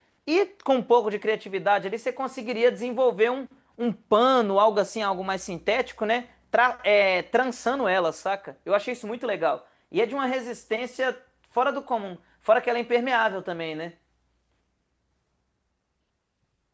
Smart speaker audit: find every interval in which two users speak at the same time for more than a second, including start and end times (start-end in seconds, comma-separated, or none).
none